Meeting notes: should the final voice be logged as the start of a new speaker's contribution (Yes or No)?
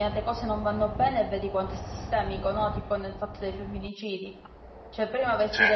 No